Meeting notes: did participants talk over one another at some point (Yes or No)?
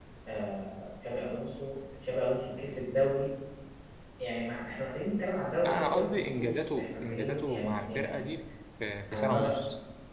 Yes